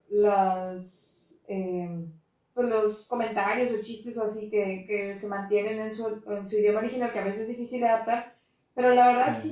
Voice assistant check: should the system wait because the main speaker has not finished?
Yes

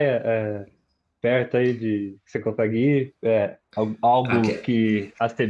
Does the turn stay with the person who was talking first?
Yes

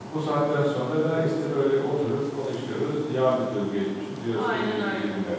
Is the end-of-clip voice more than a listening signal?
Yes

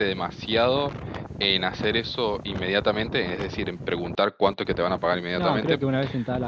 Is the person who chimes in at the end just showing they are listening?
No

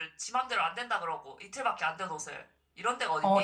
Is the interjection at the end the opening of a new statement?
Yes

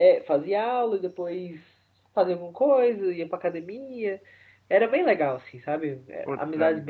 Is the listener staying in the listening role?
No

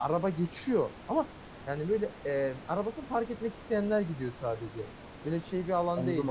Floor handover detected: Yes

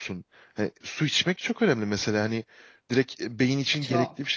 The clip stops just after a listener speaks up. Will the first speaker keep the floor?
Yes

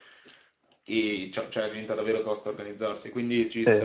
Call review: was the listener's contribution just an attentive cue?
No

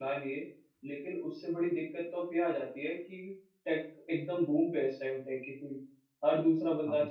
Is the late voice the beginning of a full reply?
No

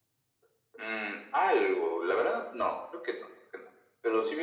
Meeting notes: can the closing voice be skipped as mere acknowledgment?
Yes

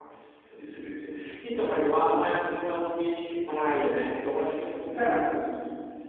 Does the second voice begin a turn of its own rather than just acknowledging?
No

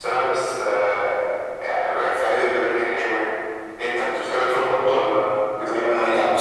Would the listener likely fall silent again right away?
No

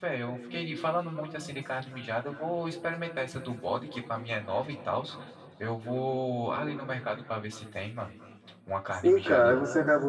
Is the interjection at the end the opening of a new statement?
Yes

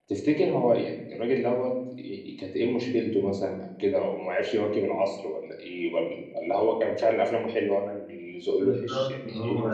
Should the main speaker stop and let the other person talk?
Yes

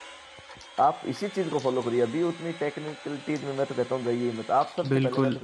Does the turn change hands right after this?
Yes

